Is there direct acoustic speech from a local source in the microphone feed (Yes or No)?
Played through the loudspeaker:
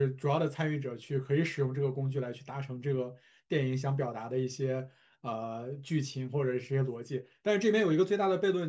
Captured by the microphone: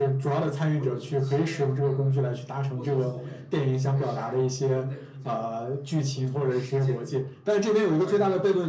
Yes